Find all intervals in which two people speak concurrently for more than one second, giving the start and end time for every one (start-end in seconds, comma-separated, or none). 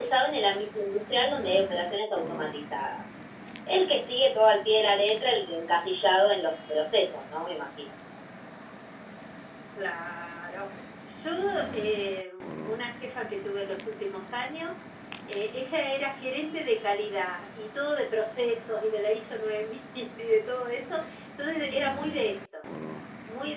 none